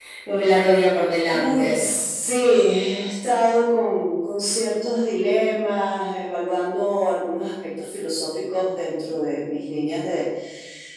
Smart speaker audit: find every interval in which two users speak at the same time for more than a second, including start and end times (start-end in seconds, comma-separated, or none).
none